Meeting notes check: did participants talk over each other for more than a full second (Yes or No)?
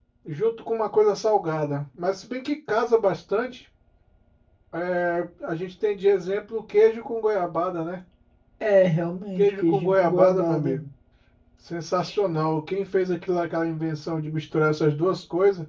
Yes